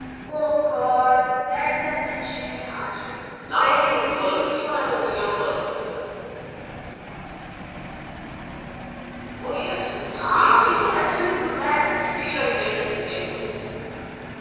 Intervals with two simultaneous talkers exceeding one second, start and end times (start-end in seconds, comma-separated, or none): 3.5-5.5, 10.0-11.4